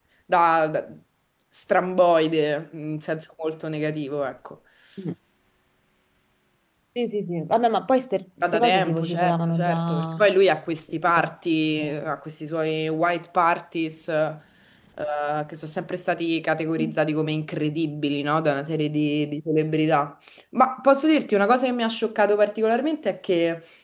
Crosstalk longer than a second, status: present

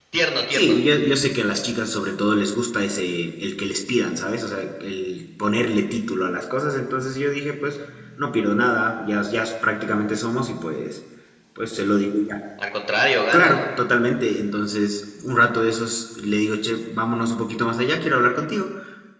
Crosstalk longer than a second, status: none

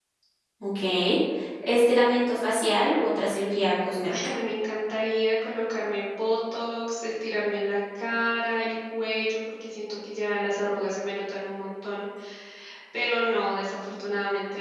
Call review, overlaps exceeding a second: none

